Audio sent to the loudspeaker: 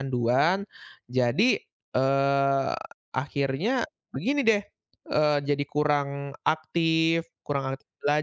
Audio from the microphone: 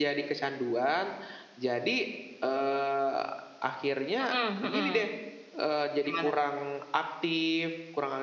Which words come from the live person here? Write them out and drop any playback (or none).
Mhm mhm. Gimana?